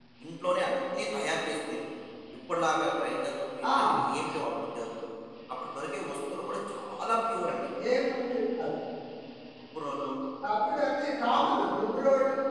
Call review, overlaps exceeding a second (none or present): none